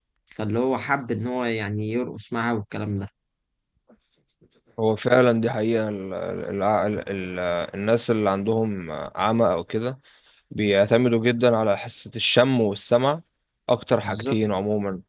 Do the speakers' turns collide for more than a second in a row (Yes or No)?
No